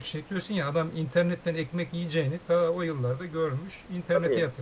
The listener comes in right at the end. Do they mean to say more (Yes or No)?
Yes